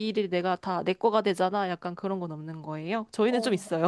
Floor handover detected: Yes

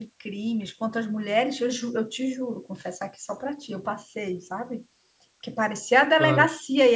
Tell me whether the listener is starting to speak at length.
No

